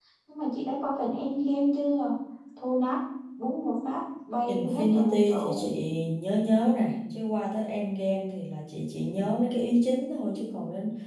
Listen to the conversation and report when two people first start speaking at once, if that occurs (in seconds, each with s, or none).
4.5 s